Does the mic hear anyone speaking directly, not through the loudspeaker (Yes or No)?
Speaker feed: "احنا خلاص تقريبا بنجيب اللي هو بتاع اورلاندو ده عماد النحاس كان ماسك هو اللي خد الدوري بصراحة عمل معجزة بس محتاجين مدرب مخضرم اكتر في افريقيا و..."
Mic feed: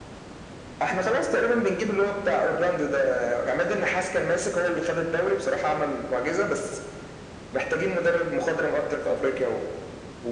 No